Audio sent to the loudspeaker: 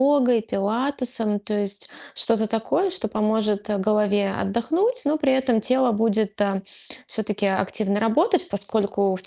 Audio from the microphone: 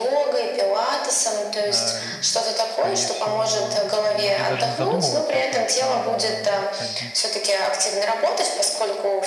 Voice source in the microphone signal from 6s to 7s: both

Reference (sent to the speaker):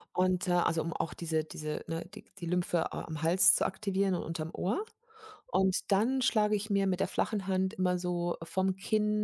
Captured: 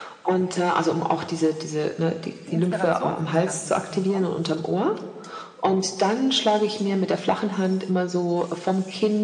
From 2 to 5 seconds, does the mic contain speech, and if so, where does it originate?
both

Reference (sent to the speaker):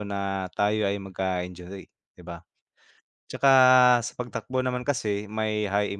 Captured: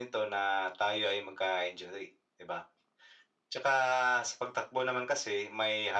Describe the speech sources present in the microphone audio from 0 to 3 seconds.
echo only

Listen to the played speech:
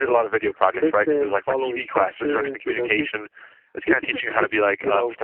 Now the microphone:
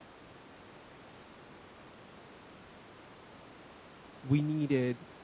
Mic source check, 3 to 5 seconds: user only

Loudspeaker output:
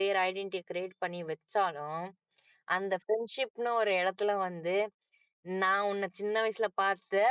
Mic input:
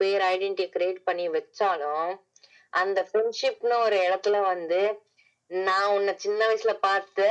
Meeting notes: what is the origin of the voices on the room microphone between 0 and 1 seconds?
echo only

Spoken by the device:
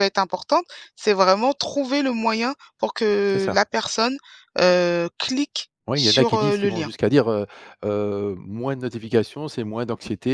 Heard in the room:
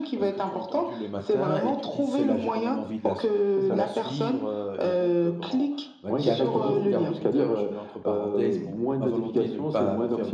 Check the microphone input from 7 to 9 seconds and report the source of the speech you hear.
both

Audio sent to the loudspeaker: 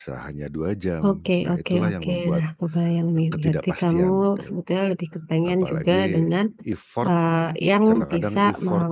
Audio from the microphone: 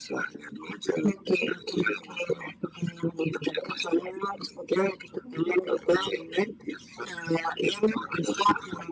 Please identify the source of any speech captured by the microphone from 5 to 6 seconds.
both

